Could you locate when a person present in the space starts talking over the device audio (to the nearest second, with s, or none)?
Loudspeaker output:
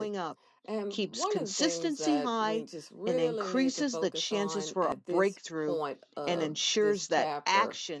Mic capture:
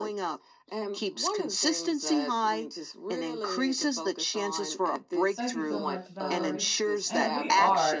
5 s